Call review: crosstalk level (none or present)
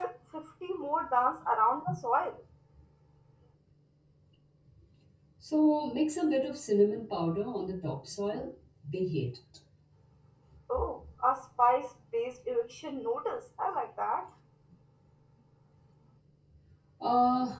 none